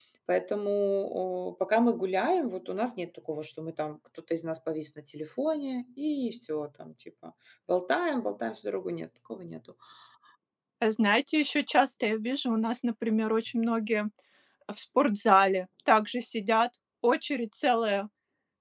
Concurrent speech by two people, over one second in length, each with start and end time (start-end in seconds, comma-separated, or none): none